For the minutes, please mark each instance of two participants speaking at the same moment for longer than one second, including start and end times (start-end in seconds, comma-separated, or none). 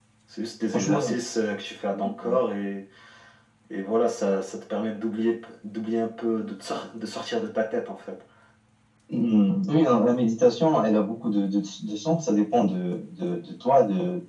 none